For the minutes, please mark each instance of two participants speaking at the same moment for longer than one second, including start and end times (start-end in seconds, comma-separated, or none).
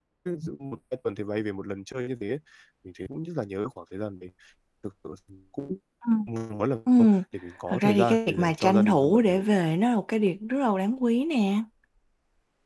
7.7-9.6